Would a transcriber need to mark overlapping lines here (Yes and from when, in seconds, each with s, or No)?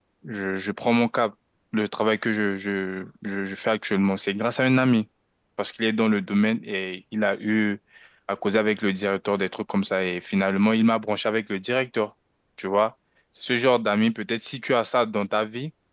No